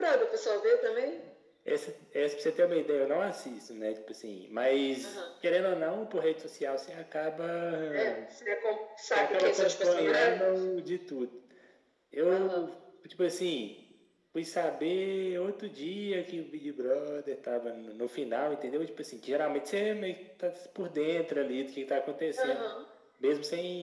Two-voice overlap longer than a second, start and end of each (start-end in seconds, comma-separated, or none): 9.2-10.6